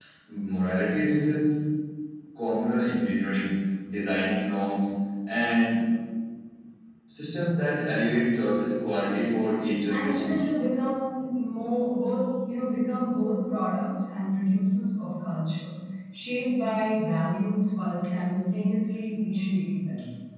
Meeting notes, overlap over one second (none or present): none